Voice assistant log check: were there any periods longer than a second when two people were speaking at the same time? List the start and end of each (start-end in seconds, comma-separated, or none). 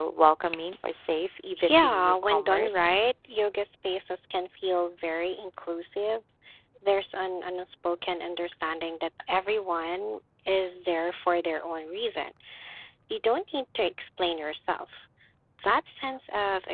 1.6-2.9